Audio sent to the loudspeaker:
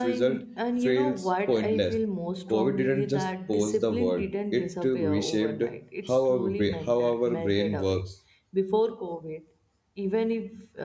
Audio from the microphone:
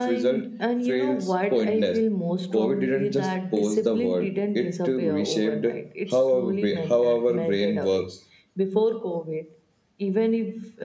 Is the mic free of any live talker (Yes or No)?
Yes